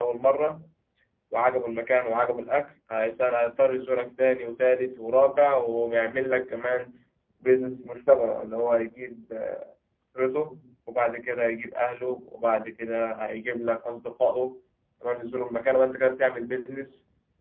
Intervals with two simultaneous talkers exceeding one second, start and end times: none

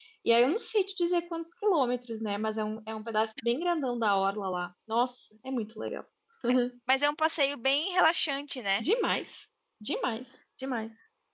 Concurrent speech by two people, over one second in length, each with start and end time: none

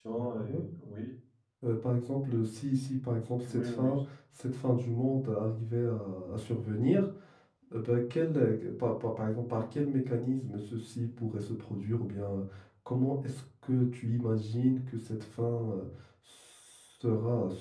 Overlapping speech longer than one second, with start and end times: none

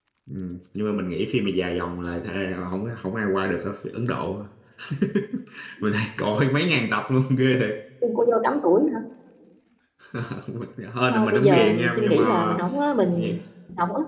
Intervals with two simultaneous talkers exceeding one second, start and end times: 11.1-12.6

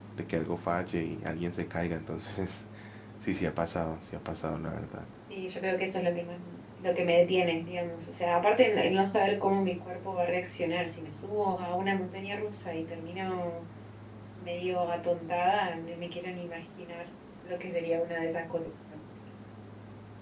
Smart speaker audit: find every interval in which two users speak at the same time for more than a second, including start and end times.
none

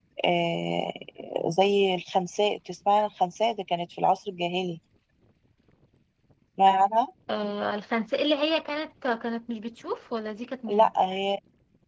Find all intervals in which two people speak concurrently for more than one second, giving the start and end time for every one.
none

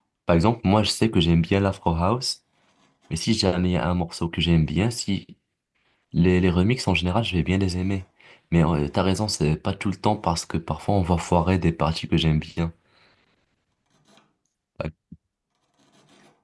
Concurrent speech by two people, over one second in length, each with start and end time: none

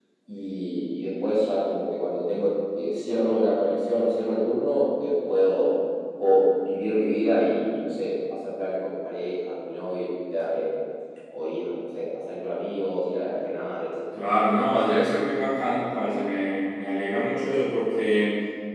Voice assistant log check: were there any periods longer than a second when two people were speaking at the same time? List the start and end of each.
none

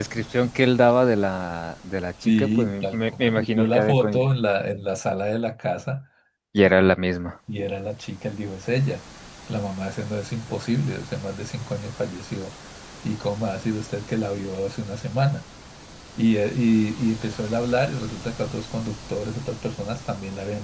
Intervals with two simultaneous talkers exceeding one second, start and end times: 2.2-4.1

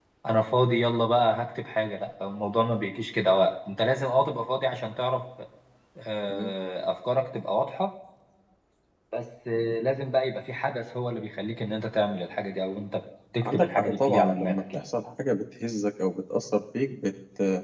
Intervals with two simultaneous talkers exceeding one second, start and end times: 13.4-14.8

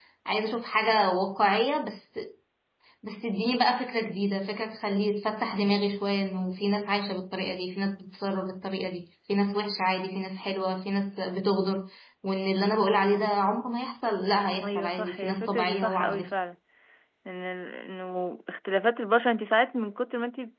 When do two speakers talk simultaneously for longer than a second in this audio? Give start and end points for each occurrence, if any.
14.6-16.3

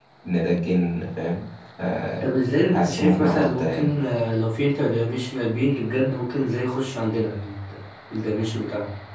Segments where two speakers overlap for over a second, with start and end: 2.2-3.9

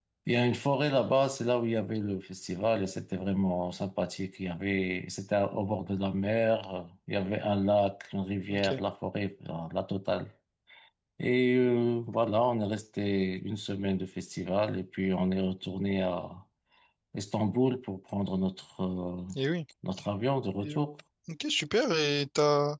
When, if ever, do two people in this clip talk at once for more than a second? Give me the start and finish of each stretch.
none

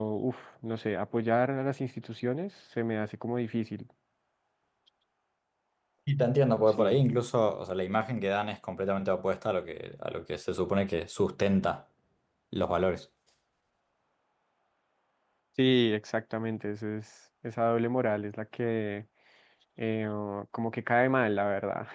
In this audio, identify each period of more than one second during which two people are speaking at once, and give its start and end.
none

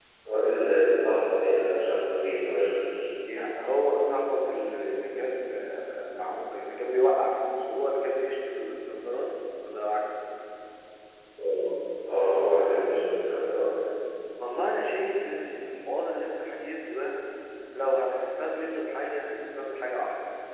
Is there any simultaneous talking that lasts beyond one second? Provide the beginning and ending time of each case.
none

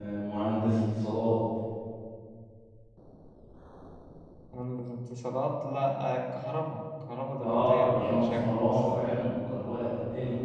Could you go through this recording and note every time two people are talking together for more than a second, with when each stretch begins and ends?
7.4-9.1

